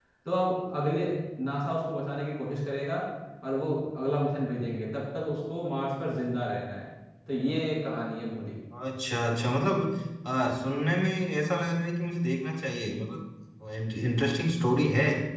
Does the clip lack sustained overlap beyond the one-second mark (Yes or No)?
Yes